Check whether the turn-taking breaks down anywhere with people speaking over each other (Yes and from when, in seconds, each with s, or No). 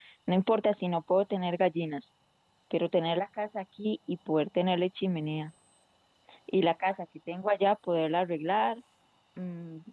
No